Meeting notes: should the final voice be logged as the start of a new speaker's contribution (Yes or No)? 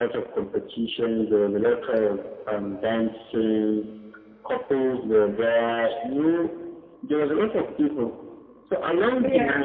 No